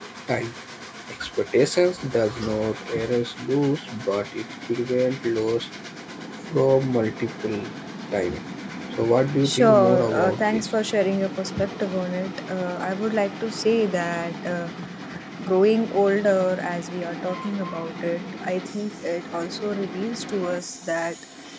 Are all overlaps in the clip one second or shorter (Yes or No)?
No